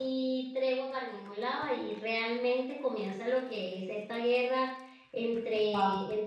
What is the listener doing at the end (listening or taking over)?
listening